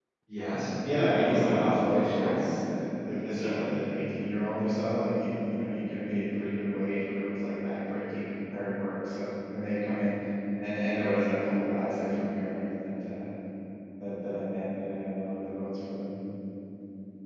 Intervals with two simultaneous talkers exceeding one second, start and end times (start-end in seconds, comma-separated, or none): 0.8-2.5